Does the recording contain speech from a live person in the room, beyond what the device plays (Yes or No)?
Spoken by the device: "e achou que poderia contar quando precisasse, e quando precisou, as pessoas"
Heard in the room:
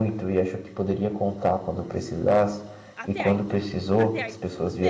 Yes